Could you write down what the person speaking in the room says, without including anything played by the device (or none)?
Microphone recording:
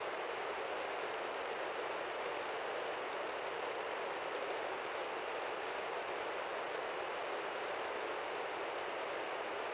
none